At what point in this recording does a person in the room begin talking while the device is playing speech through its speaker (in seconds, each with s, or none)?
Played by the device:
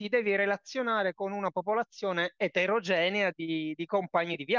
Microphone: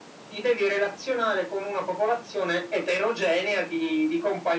none